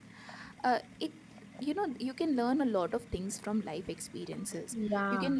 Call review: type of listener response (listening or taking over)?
listening